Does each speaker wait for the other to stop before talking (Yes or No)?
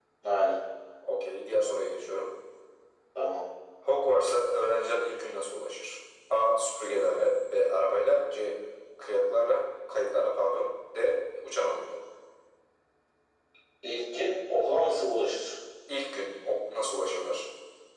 Yes